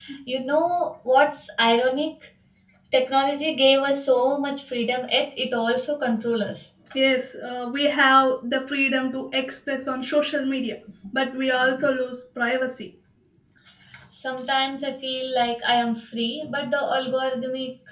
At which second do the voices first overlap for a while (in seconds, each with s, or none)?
none